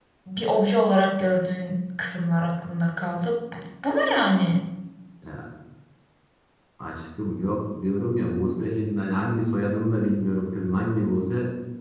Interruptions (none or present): none